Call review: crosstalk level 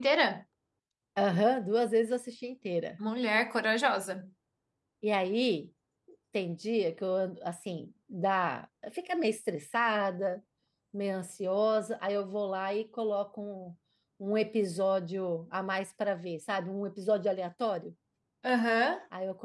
none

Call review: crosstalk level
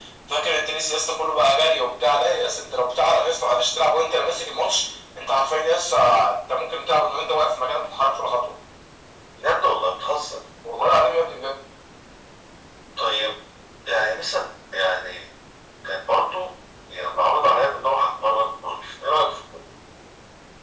none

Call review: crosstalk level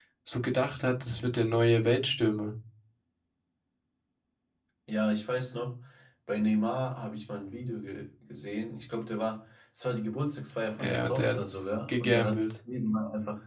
present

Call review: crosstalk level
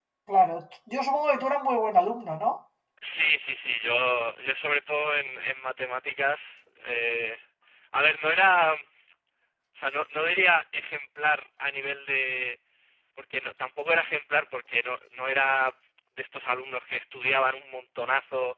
none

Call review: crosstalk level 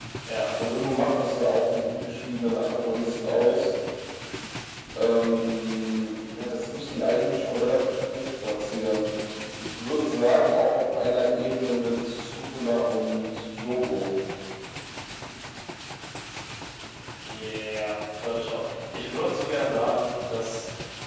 none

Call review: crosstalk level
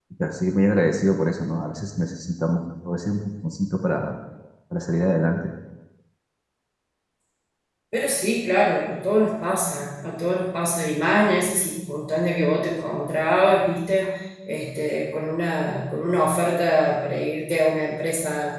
none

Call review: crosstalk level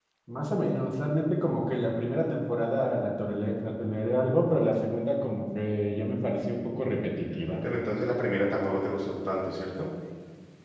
none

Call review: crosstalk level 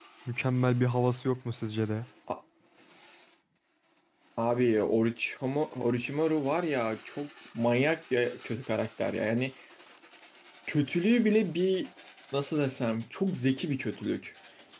none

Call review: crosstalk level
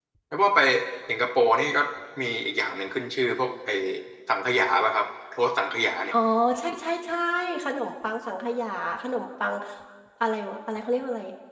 none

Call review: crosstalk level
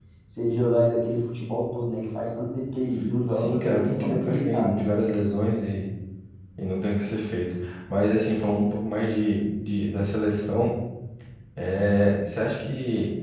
present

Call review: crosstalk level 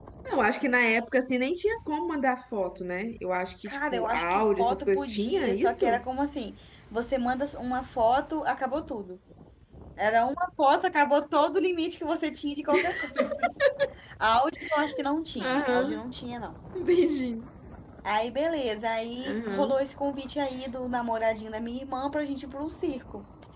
present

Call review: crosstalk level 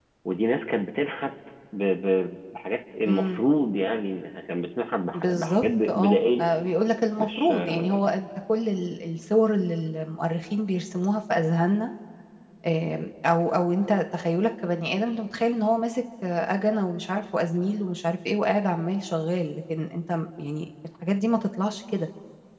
present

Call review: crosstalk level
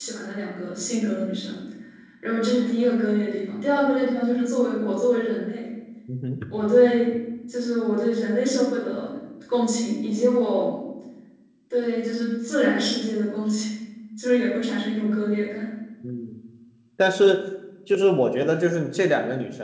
none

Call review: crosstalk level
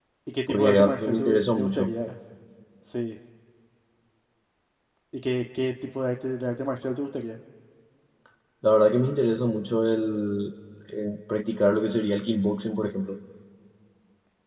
present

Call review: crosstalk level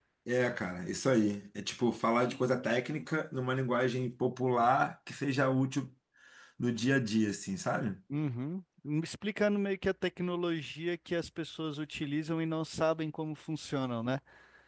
none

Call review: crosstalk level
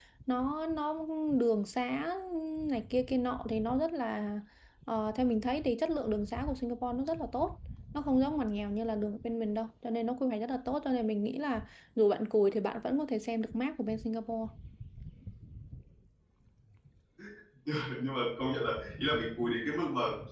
none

